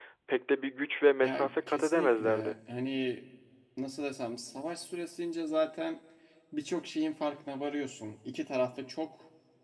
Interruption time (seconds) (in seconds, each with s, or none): 1.2 s